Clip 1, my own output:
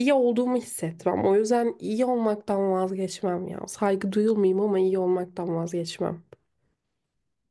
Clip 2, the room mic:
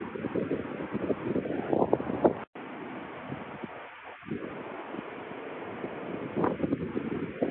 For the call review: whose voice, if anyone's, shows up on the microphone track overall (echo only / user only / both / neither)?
neither